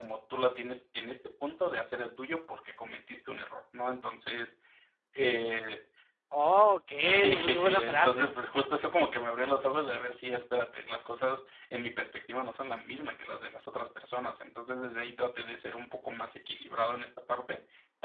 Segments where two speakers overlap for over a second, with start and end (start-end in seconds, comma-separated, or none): 7.0-8.3